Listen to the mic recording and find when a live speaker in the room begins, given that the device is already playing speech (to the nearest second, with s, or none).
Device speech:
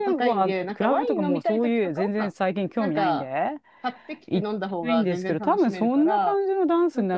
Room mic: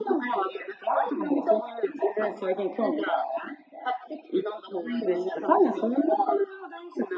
none